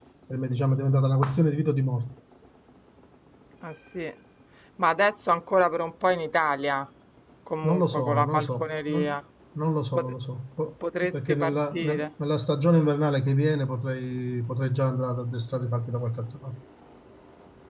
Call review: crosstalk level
present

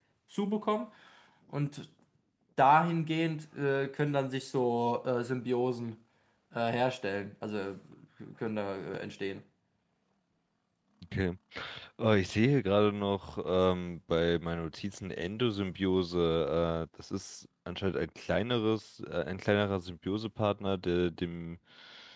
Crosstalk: none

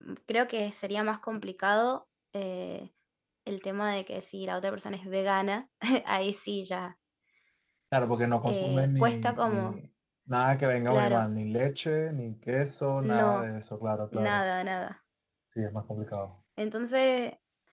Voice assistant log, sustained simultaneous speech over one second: present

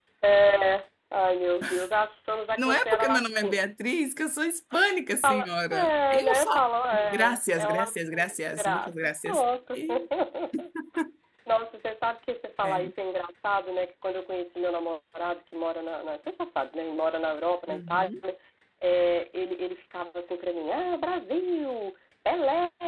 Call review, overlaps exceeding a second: present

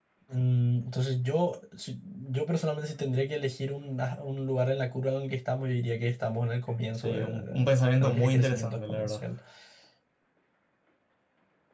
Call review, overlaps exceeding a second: present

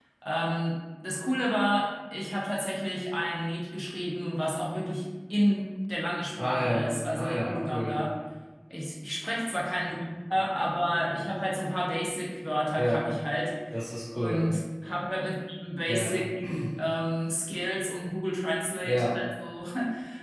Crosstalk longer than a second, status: present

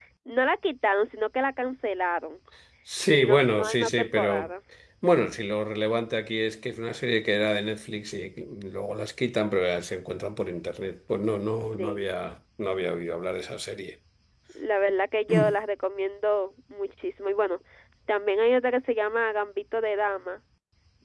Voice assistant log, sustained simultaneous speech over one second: present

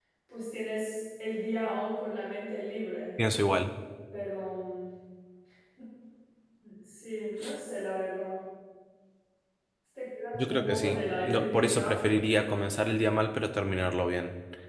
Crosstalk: present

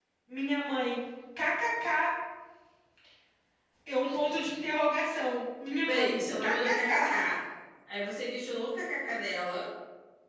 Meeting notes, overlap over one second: present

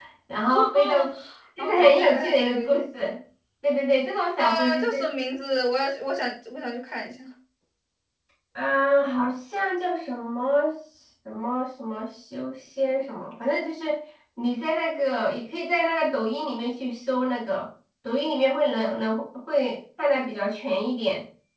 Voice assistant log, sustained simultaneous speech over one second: present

